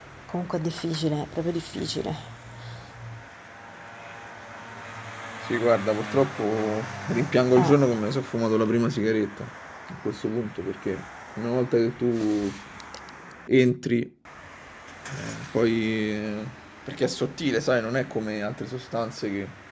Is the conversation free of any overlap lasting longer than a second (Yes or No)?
Yes